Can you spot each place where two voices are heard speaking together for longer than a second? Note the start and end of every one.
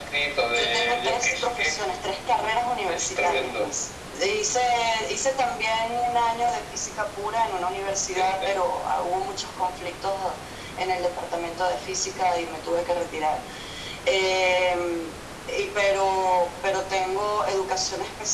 0.5-1.8, 2.3-3.7

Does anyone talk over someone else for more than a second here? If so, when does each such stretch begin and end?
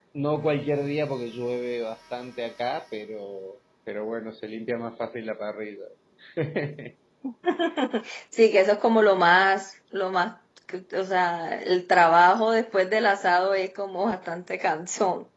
none

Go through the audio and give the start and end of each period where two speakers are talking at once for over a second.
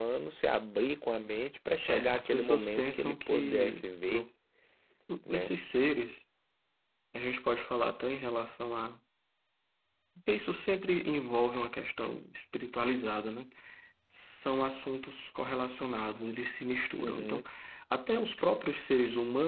1.9-4.2

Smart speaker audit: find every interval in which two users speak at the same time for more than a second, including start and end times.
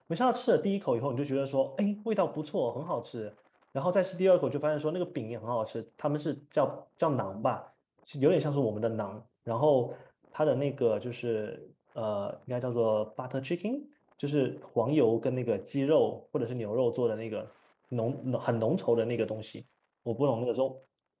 none

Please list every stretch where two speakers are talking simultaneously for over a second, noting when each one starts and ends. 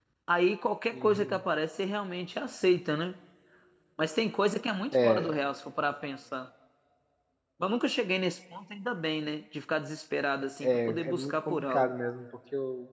10.6-11.9

